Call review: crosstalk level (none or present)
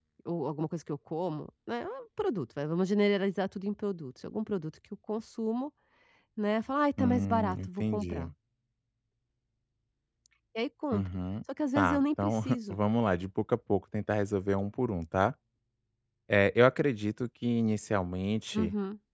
present